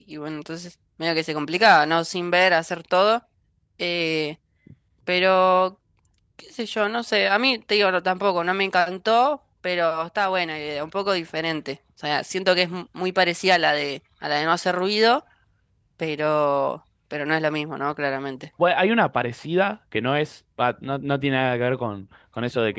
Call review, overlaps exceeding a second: none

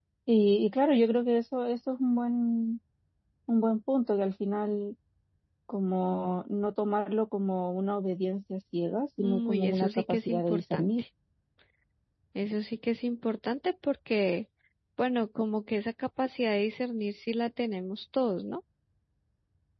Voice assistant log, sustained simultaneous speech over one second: present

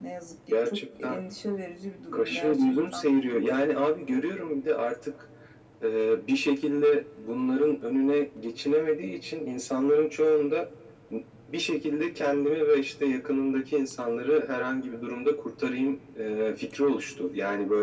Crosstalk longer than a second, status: present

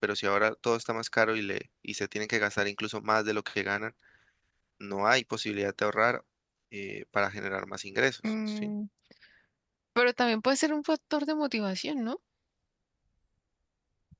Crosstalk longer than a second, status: none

